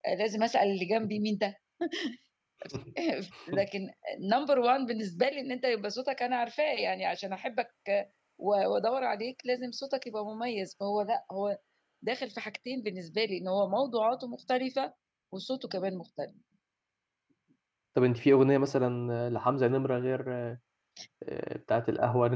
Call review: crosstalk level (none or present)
none